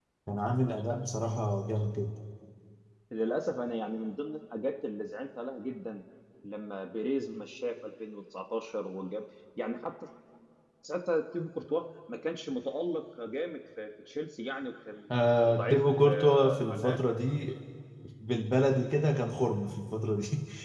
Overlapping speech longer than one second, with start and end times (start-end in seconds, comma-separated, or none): 15.4-17.0